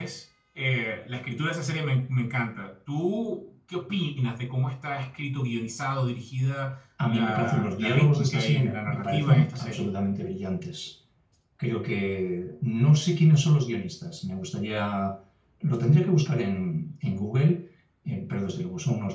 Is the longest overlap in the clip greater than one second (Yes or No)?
Yes